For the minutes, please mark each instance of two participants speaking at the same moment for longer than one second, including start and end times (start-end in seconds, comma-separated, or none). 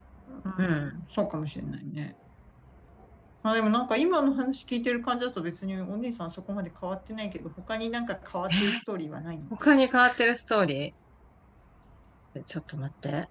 none